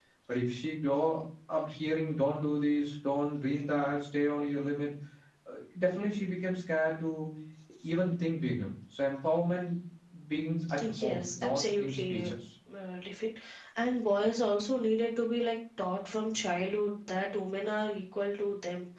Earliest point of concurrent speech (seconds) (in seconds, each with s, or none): 10.8 s